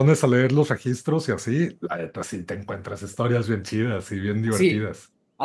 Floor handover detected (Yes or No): Yes